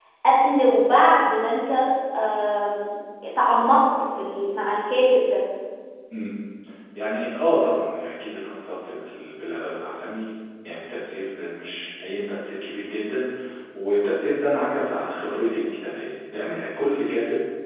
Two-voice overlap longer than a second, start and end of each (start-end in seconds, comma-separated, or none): none